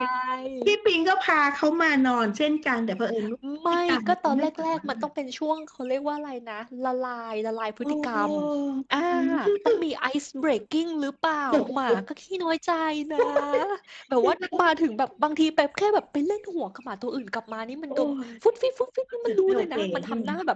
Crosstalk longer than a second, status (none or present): present